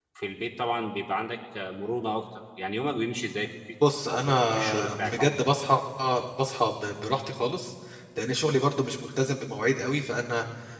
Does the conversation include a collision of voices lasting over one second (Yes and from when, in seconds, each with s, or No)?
Yes, from 4.1 s